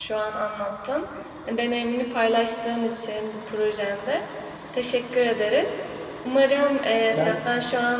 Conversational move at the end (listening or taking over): listening